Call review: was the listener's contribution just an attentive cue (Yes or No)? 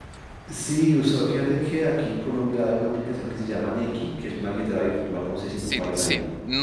No